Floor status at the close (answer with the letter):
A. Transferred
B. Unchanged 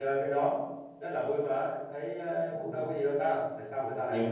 A